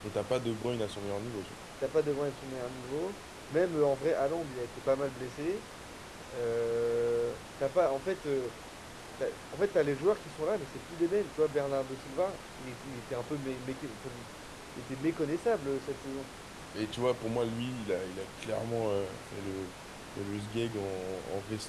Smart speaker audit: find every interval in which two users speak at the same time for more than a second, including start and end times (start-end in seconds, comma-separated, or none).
none